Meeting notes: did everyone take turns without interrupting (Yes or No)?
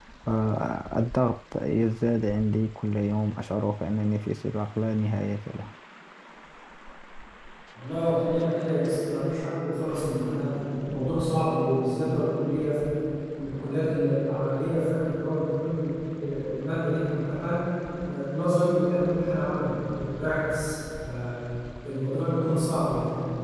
Yes